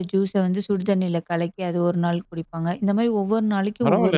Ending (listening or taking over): taking over